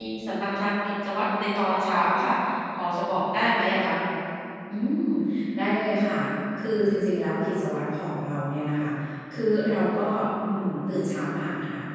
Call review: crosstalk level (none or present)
none